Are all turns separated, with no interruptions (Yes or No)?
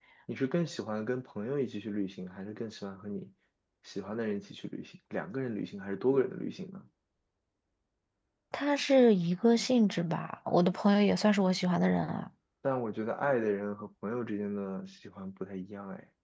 Yes